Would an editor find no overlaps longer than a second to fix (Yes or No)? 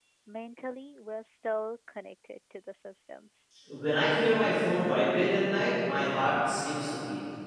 Yes